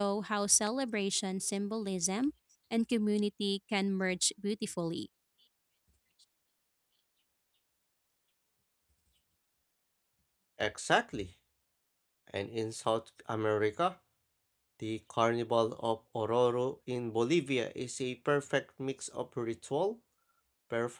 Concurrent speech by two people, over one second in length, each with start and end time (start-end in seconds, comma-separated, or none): none